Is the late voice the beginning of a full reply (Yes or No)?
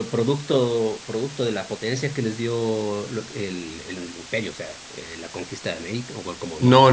Yes